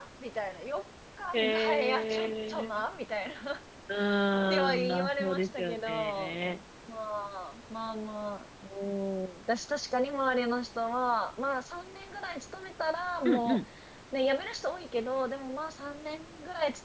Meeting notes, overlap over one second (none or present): present